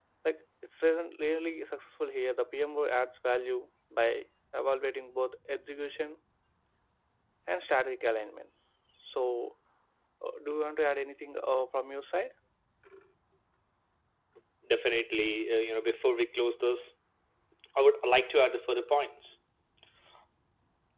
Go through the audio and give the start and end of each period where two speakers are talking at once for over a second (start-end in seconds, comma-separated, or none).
none